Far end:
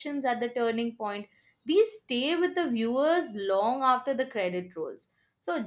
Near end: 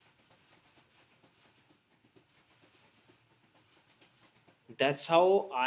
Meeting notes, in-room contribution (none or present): present